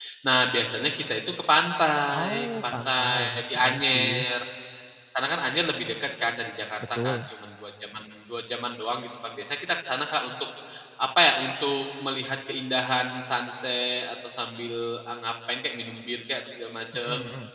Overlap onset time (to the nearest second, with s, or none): 2 s